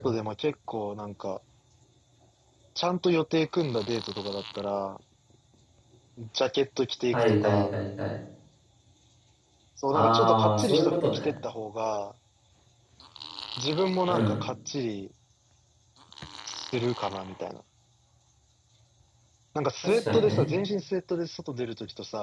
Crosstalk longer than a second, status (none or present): present